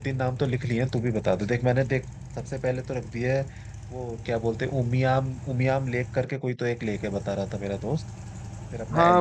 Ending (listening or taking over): taking over